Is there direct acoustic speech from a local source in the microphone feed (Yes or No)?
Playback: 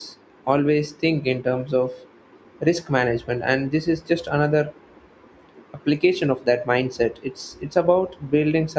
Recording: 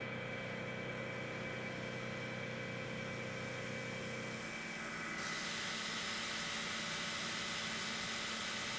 No